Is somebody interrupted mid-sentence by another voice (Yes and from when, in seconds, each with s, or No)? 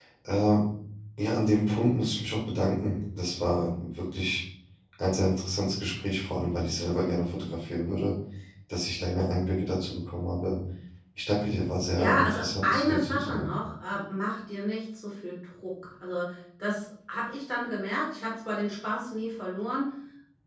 Yes, from 12.0 s